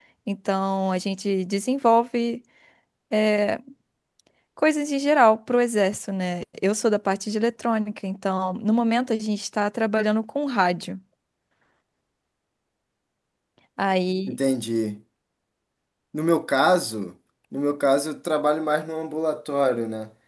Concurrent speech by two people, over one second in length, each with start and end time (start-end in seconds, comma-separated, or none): none